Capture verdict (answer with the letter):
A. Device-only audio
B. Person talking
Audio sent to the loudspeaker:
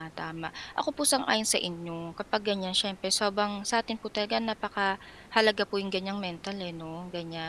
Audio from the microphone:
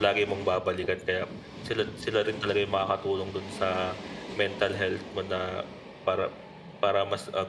B